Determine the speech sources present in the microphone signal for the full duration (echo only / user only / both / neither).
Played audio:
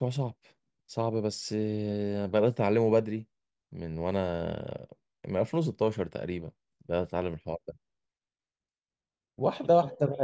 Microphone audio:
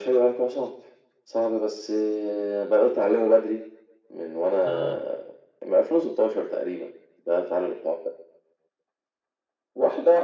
both